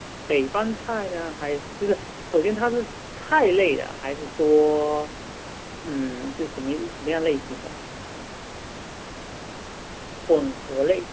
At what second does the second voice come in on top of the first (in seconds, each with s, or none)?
none